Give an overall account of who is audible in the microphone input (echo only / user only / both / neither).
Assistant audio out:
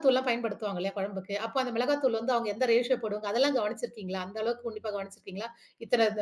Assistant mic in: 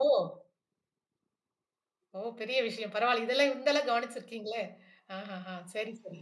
user only